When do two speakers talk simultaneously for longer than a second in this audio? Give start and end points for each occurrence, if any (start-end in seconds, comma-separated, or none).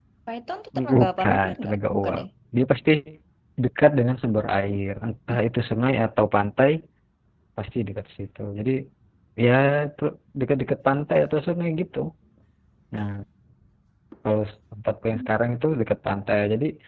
0.9-2.2